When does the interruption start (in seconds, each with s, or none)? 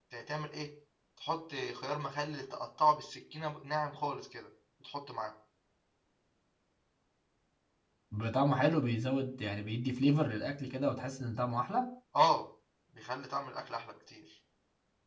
none